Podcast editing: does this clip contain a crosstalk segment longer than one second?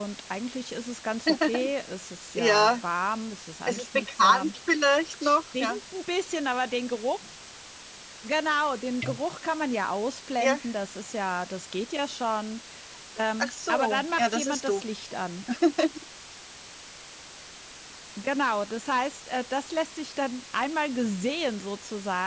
Yes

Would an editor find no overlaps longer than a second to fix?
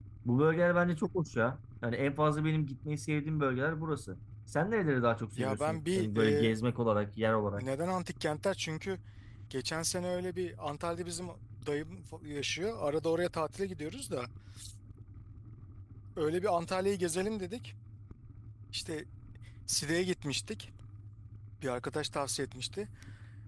No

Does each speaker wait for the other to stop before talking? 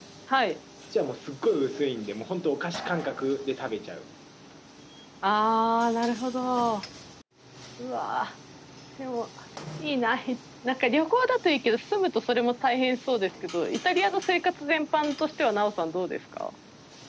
Yes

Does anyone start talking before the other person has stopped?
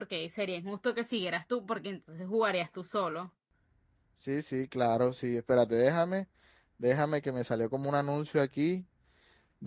No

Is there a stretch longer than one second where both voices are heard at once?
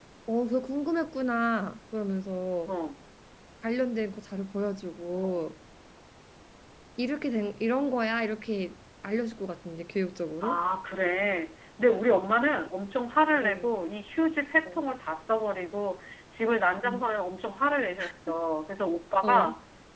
No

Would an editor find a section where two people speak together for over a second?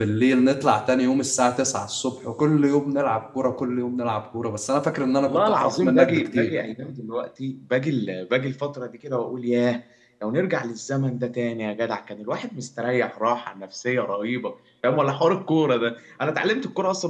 Yes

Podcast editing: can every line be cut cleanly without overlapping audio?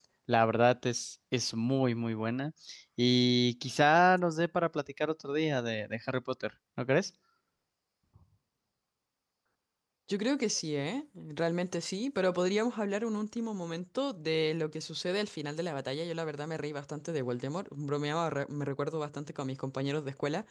Yes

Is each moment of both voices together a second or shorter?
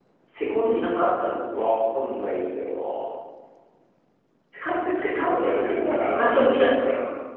No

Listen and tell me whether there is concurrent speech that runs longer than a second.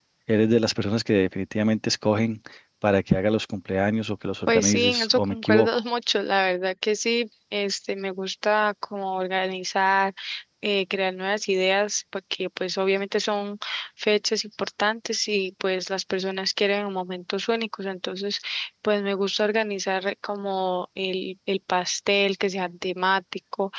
Yes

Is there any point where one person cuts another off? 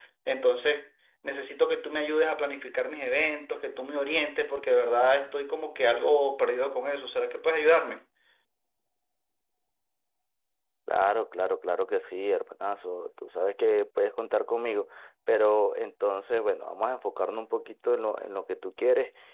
No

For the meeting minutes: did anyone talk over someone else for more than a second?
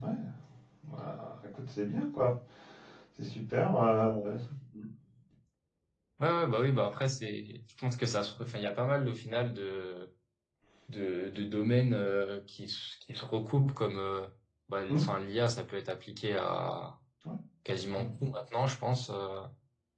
No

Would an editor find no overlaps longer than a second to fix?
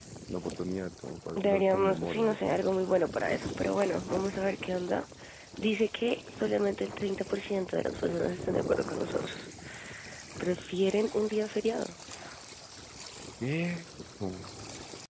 No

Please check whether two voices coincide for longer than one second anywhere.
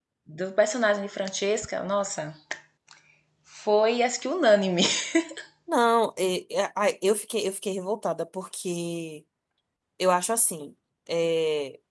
No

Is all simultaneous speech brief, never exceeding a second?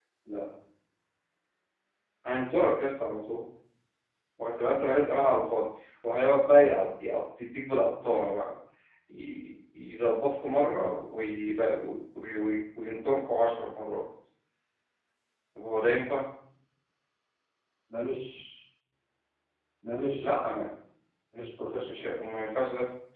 Yes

